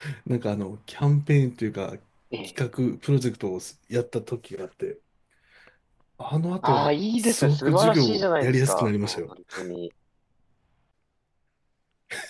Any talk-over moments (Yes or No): Yes